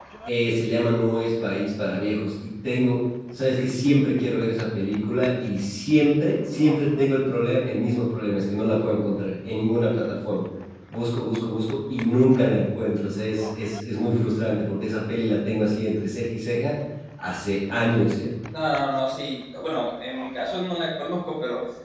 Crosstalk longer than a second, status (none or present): none